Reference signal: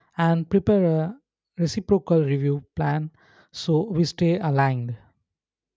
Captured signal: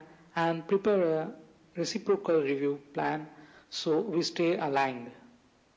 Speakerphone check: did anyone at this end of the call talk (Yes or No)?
No